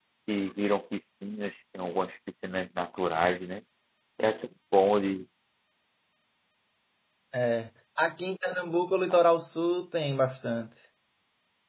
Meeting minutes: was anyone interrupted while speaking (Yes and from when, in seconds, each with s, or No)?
No